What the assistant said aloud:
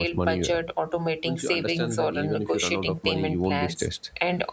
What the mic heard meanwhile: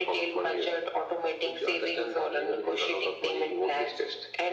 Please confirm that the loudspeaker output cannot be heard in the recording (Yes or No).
No